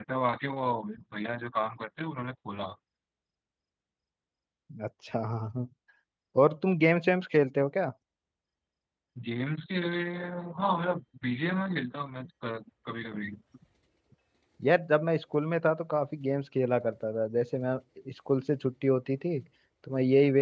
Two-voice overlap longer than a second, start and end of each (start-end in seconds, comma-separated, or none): none